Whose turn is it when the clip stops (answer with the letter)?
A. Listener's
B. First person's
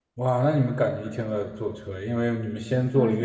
B